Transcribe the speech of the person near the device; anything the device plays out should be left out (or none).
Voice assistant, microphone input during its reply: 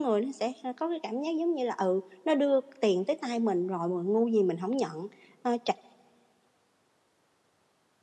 none